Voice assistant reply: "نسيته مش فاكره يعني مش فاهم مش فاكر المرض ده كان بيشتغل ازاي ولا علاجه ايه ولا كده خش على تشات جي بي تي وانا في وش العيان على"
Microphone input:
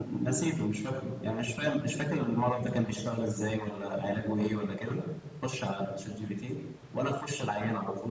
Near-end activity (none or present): none